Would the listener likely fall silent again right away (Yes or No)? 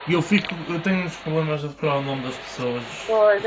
No